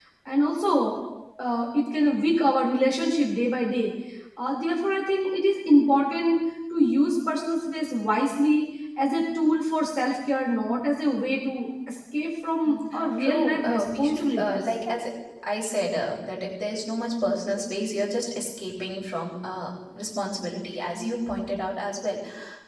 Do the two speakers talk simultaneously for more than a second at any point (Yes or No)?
Yes